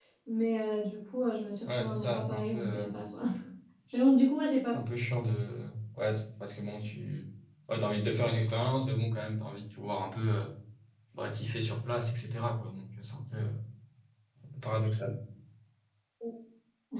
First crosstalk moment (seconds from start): 1.7 s

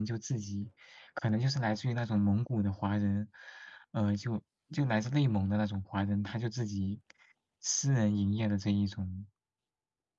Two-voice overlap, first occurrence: none

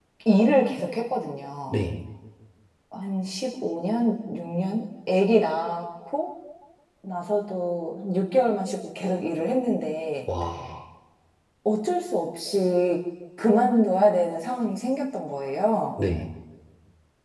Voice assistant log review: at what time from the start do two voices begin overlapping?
none

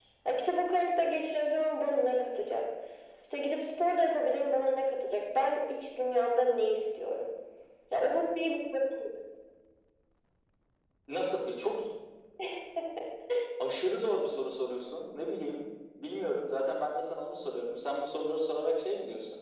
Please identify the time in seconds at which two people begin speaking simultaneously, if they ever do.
none

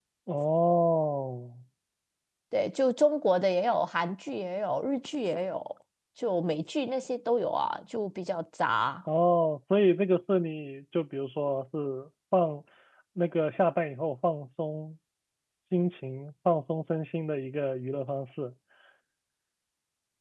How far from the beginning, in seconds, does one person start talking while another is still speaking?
none

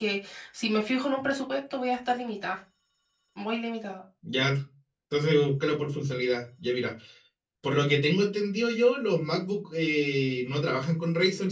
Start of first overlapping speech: none

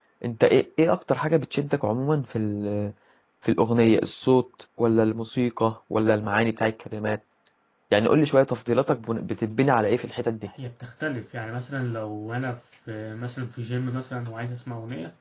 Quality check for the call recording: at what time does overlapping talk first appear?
none

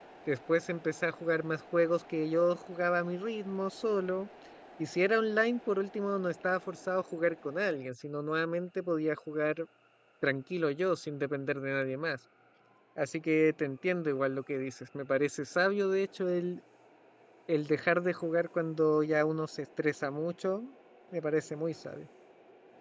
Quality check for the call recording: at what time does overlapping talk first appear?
none

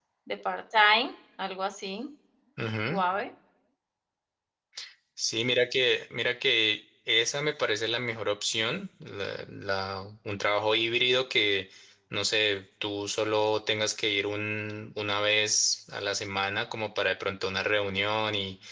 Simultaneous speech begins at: none

